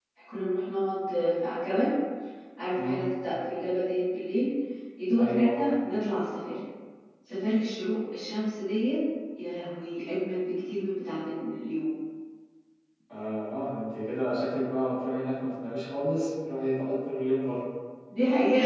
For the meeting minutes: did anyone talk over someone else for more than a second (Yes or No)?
No